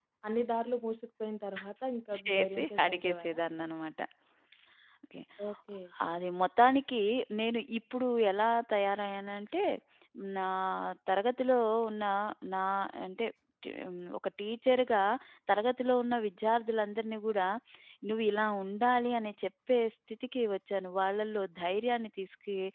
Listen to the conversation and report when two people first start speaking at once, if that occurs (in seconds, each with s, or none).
2.1 s